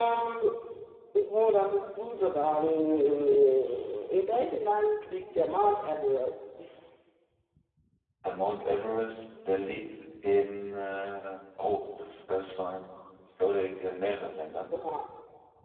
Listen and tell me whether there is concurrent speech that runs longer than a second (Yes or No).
No